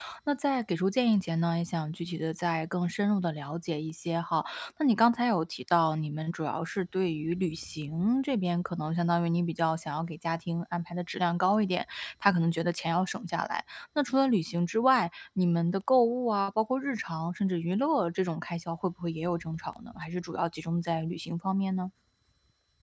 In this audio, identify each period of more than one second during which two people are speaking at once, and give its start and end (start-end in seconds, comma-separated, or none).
none